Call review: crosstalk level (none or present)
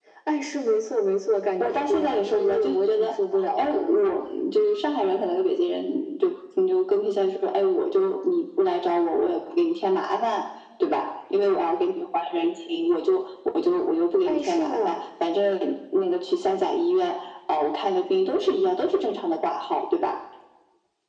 present